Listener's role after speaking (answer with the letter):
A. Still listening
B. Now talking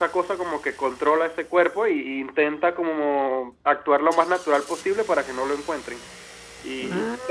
A